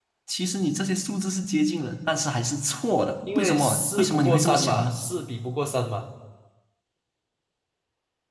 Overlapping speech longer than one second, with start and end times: 3.3-5.0

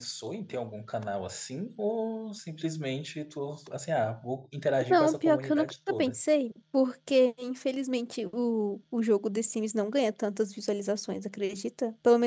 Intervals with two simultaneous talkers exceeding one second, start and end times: 4.9-6.2

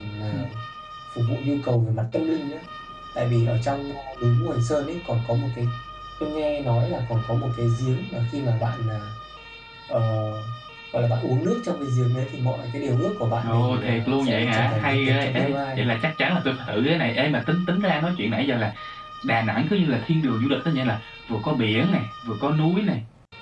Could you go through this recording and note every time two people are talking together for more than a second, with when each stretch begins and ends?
13.4-15.8

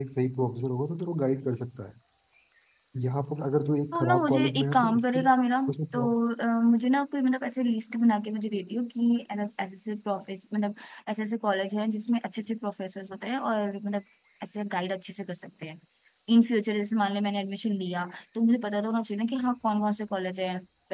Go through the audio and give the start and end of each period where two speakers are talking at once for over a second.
3.9-5.2

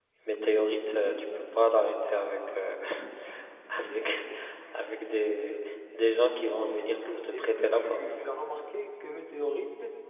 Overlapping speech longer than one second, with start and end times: 6.8-8.2

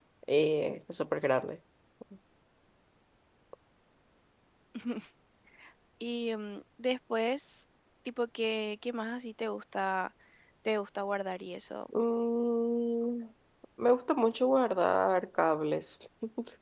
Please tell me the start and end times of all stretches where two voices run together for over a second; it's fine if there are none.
none

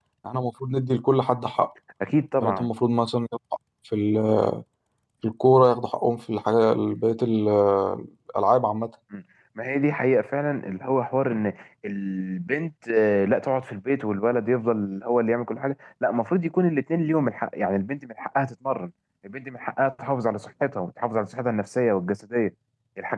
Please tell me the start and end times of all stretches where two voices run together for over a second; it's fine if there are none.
none

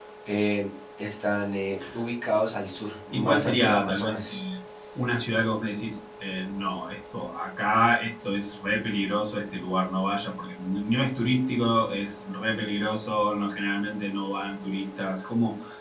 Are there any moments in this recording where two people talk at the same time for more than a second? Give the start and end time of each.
3.1-4.4

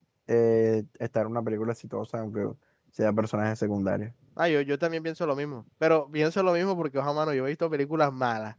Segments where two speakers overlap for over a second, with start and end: none

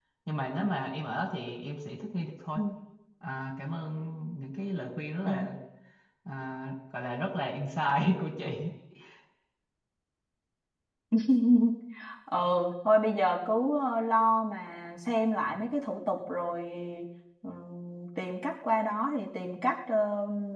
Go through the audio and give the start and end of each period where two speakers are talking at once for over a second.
none

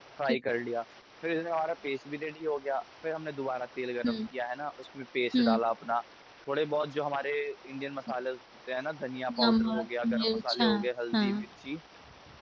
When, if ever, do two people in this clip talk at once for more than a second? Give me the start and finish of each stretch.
9.4-10.7

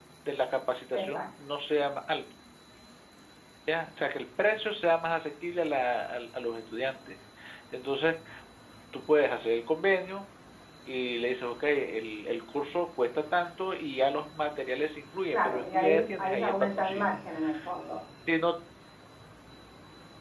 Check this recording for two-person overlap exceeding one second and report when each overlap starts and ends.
15.3-17.2

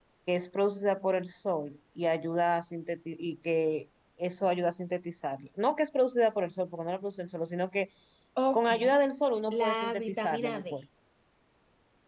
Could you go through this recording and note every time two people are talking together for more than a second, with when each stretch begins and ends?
9.5-10.8

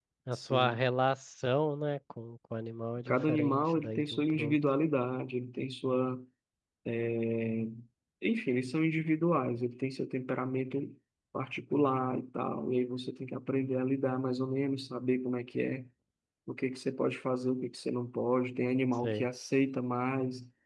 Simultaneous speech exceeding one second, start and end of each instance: 3.1-4.6

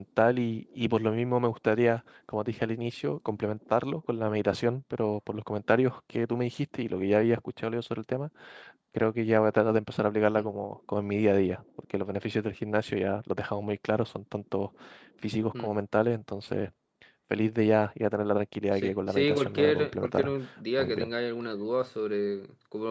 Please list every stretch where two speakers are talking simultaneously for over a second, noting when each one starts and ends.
18.7-20.3

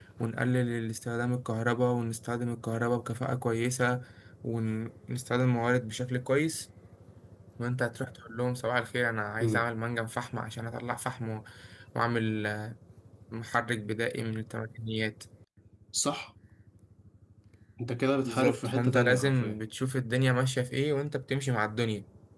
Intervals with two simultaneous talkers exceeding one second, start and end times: 18.2-19.6

